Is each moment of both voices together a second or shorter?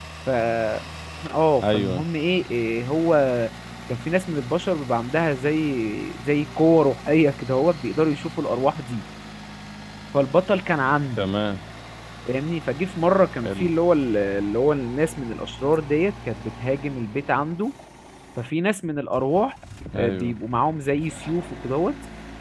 Yes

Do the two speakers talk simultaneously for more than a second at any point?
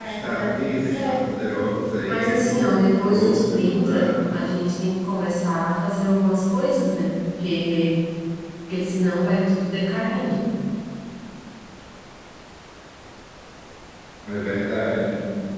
Yes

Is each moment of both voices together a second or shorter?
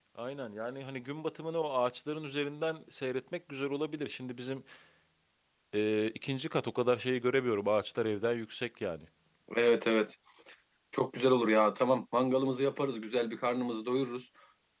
Yes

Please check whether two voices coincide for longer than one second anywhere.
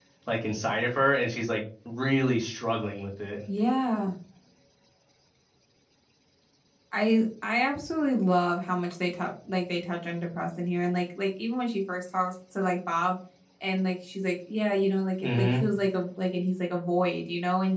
No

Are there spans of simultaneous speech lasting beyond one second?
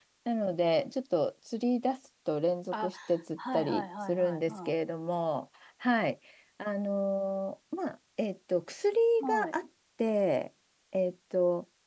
Yes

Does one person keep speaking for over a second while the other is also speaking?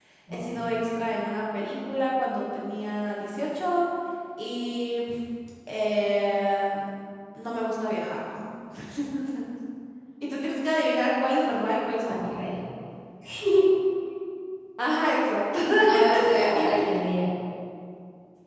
No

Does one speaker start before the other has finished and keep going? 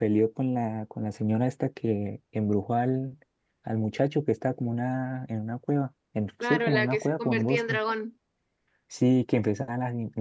Yes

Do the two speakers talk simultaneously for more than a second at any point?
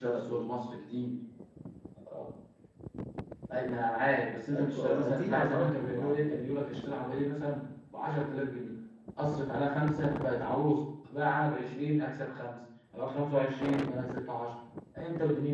Yes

